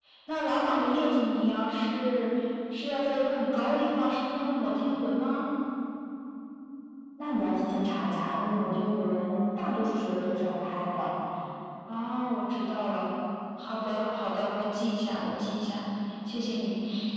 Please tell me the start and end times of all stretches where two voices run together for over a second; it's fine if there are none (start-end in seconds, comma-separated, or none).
none